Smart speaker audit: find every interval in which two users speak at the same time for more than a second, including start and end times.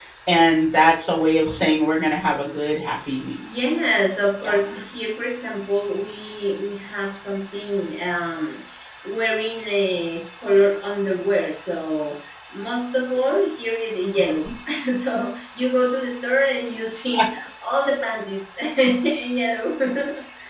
none

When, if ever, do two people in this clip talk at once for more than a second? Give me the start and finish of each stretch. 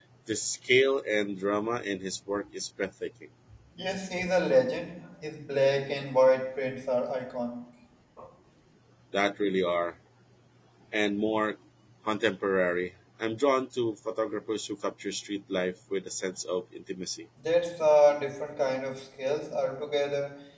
none

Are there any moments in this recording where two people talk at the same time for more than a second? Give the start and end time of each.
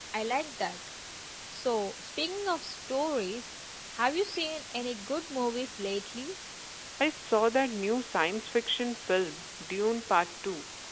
none

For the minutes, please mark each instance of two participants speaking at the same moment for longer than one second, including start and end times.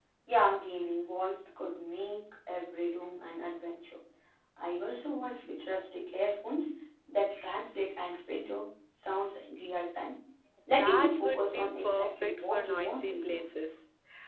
10.8-13.4

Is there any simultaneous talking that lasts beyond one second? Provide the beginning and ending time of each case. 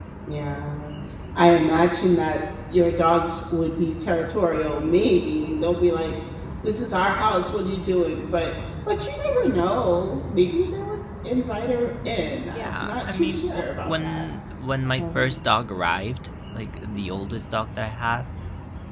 12.6-14.2

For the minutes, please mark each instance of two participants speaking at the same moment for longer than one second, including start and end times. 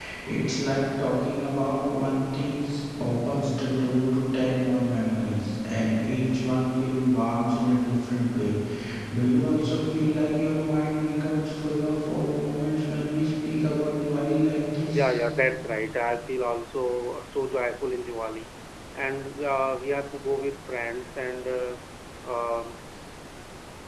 none

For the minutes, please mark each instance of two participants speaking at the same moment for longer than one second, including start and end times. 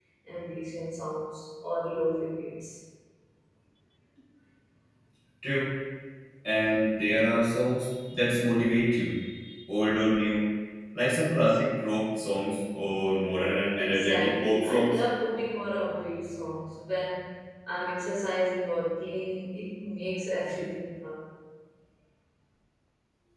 13.8-15.0

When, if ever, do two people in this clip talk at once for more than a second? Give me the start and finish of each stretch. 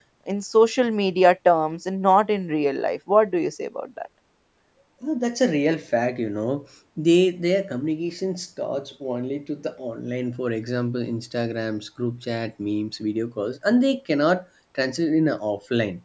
none

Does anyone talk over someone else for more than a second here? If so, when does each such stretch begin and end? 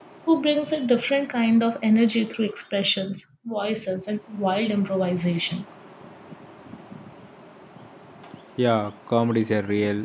none

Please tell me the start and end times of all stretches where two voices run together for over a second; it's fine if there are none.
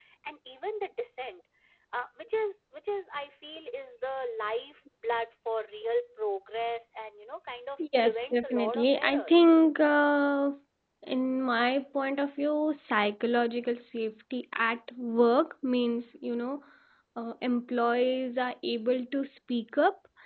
7.8-9.5

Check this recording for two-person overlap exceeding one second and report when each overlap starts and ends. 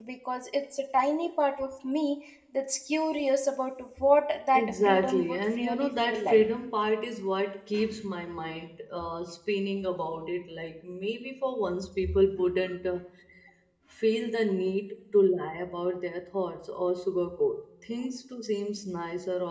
4.5-6.4

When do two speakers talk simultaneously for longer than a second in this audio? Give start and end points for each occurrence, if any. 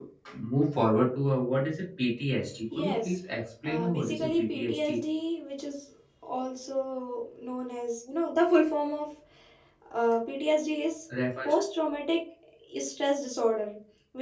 3.6-5.0

